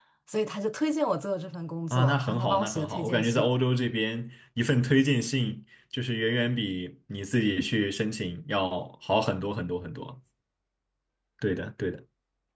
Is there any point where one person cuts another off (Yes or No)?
Yes